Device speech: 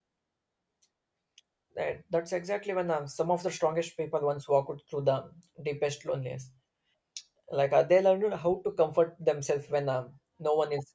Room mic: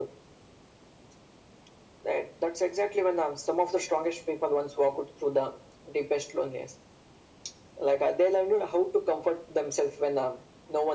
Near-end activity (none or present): none